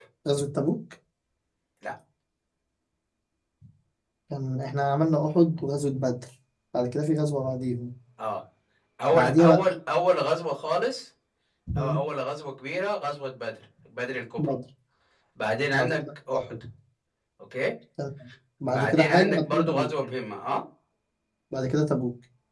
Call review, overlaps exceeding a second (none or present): present